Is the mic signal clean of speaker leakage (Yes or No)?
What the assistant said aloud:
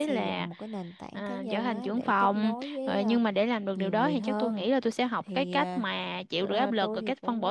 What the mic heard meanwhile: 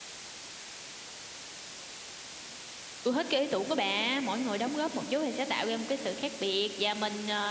Yes